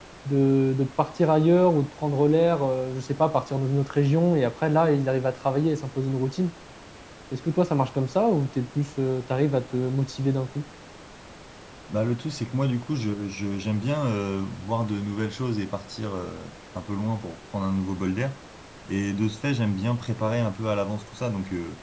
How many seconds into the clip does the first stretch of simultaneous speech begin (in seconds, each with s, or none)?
none